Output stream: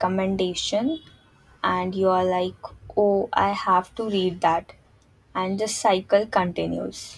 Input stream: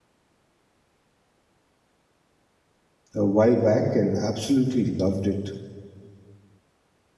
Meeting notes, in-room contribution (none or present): present